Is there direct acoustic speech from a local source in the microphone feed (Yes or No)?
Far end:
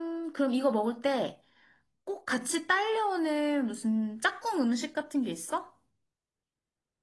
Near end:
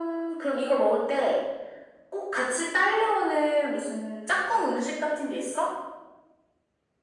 No